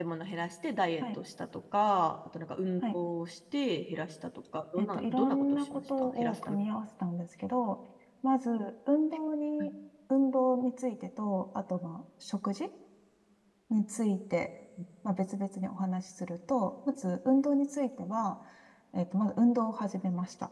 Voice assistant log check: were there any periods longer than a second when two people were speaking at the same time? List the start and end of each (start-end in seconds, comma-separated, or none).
4.8-6.6